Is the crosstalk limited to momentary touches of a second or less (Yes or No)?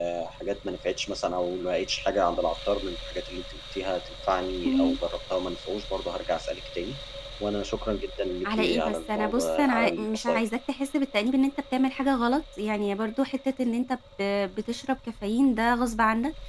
No